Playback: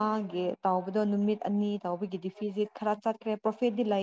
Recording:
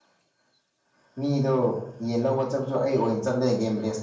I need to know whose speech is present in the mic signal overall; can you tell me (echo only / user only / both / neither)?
user only